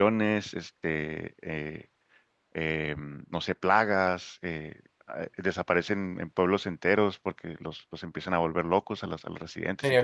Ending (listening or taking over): taking over